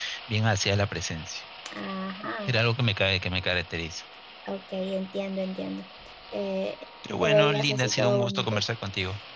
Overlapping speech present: Yes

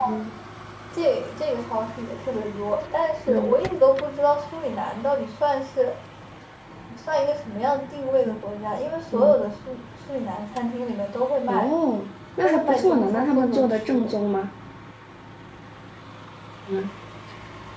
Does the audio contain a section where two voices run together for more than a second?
Yes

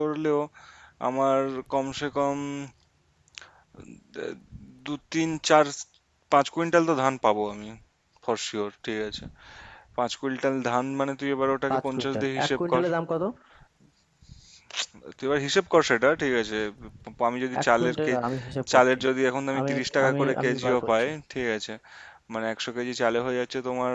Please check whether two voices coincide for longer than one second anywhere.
Yes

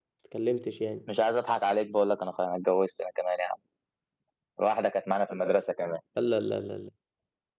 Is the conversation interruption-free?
Yes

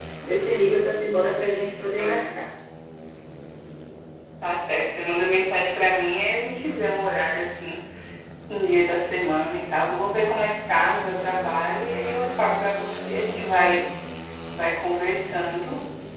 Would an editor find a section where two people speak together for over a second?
No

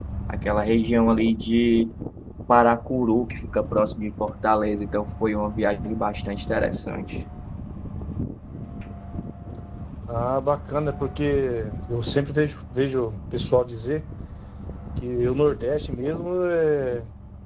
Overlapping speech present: No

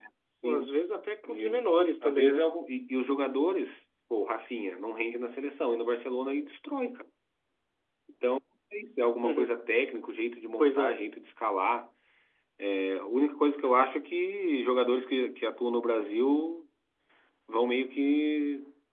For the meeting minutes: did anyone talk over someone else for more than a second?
No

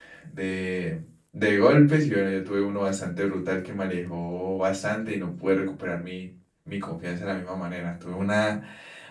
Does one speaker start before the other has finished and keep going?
No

